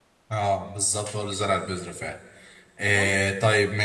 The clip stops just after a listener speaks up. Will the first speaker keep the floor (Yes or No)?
Yes